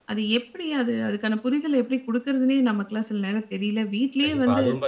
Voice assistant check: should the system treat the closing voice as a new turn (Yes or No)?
Yes